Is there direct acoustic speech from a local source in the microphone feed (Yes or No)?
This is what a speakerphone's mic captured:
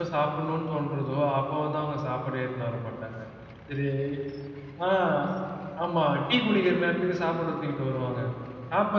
Yes